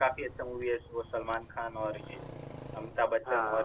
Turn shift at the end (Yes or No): Yes